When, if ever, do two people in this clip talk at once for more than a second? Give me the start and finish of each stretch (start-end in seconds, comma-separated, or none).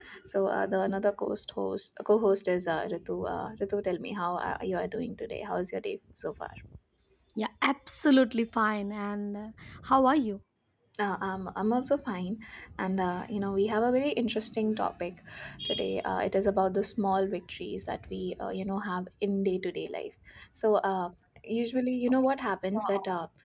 none